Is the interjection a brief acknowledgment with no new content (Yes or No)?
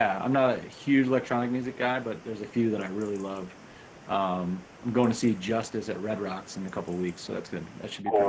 No